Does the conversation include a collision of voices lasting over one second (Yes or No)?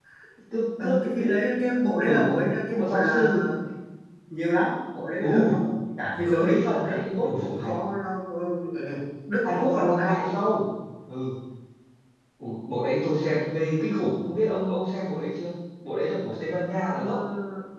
Yes